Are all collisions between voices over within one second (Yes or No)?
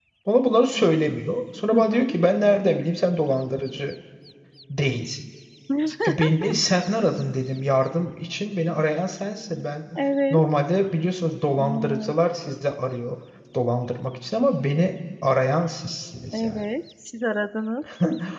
Yes